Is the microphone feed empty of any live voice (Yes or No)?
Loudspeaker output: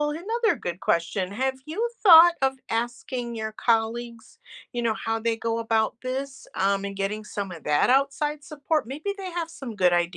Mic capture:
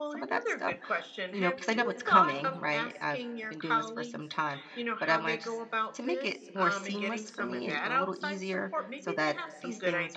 No